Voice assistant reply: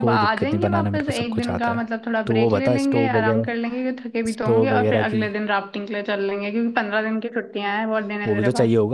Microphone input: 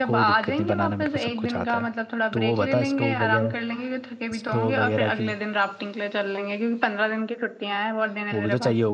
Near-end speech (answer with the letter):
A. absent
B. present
A